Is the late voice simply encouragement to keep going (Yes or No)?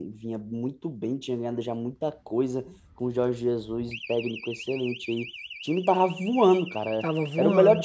Yes